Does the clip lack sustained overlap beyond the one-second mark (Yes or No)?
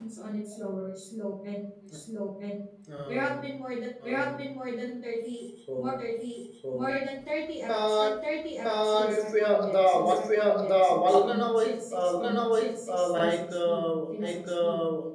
No